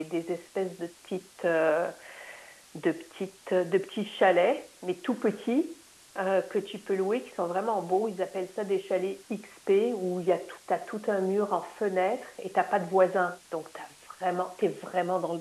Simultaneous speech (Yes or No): No